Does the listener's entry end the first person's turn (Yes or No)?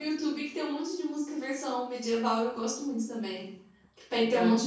No